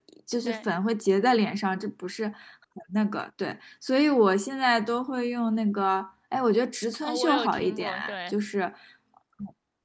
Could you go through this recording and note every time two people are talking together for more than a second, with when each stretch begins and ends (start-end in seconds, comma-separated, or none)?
7.0-8.3